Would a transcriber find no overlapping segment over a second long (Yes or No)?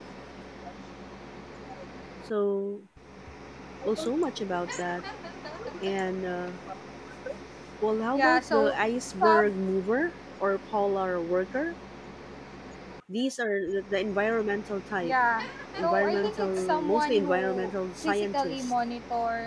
No